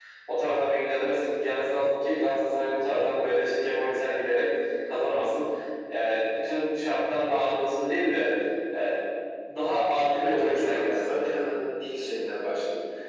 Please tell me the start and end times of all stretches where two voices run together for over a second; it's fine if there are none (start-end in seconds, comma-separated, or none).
10.2-11.4